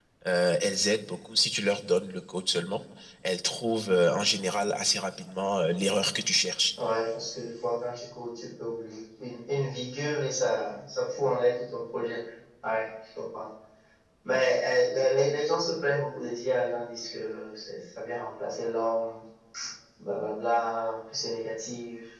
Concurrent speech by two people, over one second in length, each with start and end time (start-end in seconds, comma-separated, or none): none